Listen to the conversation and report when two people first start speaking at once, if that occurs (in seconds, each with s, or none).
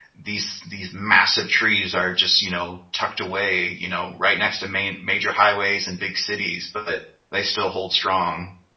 none